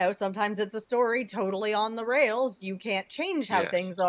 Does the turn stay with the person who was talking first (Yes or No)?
Yes